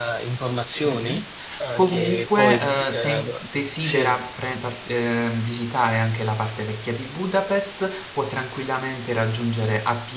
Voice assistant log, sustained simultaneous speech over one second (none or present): present